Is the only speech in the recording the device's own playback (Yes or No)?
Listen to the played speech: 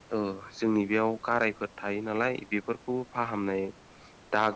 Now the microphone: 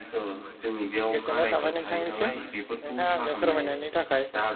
No